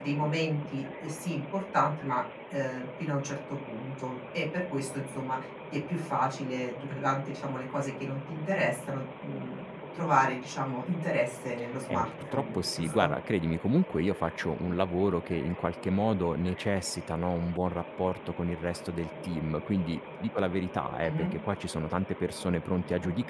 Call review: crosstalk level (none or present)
present